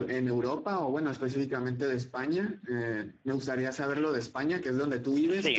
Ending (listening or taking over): listening